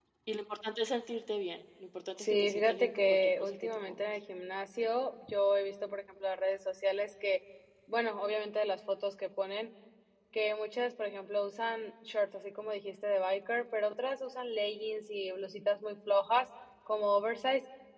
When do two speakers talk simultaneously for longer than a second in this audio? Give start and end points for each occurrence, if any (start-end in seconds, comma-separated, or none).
2.2-4.1